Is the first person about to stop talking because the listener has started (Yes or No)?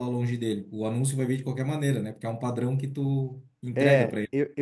Yes